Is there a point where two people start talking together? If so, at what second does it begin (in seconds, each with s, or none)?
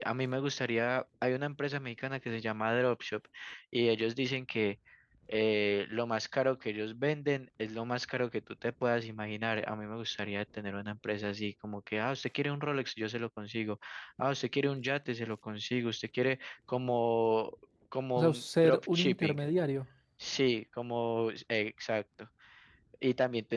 18.2 s